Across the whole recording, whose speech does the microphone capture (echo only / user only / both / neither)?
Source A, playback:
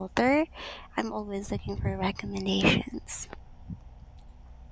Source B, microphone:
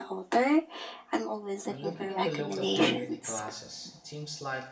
both